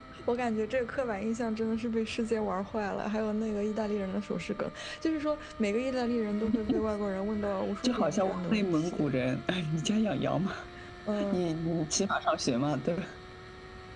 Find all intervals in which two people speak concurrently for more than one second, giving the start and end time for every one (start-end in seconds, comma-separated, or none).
7.8-9.0